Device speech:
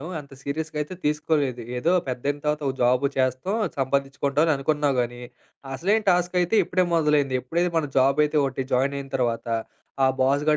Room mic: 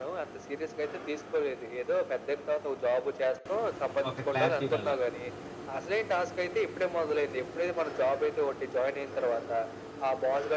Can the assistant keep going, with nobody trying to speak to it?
No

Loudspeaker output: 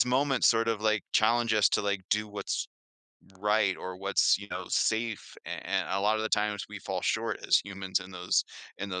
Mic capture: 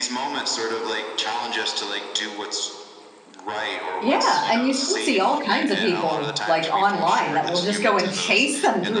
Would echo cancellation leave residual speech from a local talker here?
Yes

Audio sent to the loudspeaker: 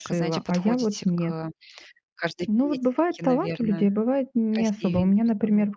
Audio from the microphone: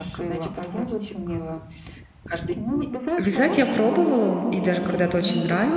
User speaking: Yes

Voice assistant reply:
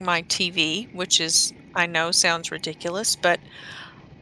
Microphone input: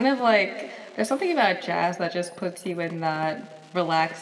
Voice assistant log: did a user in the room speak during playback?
Yes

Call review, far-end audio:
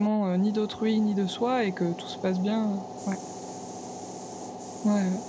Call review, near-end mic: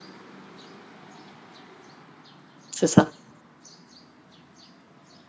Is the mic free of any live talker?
No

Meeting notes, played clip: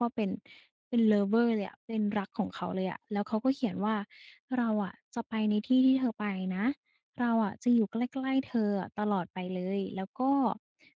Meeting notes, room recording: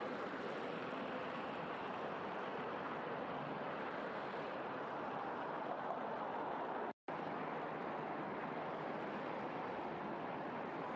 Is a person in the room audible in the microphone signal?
No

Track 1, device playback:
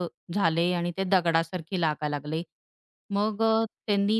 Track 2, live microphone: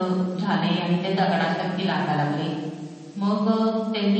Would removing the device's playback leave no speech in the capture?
Yes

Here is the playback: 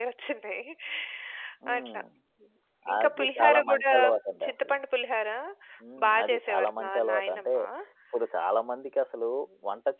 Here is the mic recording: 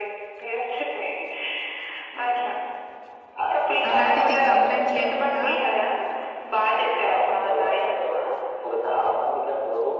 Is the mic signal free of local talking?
No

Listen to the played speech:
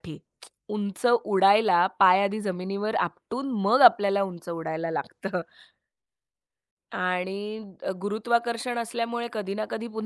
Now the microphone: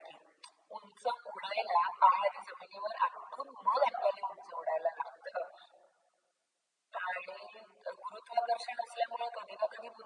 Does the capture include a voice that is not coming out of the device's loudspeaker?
No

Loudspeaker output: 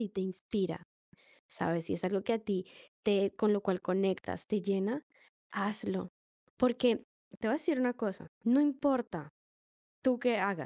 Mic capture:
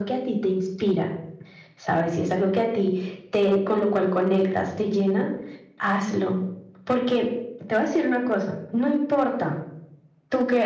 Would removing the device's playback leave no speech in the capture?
Yes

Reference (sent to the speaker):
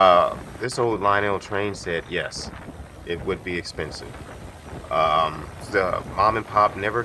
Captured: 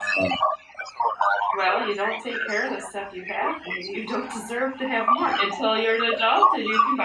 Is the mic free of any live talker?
No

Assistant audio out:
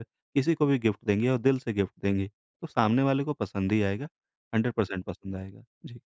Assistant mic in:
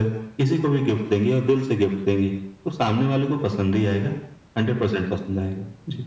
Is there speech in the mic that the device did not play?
No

